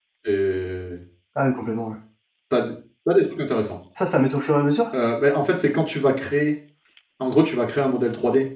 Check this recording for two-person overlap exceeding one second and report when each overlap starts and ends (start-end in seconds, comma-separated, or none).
none